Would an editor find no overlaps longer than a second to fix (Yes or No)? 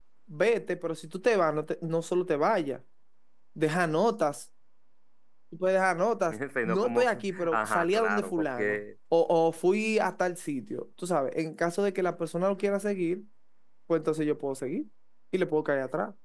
No